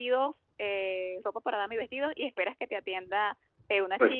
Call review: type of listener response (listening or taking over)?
listening